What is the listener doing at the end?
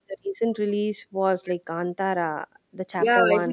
taking over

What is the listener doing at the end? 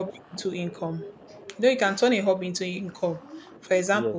listening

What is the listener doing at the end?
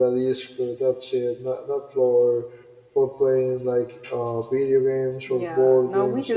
taking over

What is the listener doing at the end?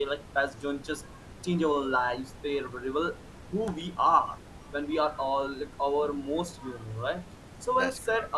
listening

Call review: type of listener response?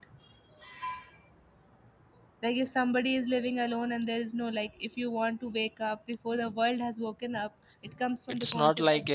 taking over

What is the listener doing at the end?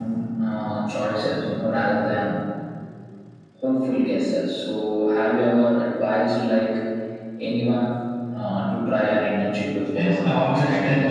taking over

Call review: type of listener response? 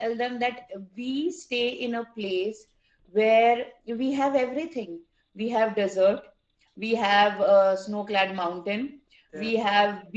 listening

